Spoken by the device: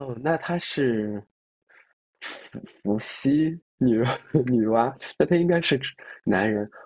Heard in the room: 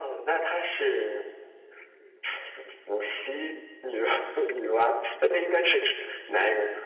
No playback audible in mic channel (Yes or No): No